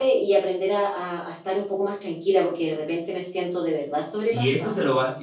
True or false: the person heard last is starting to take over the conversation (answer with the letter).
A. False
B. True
B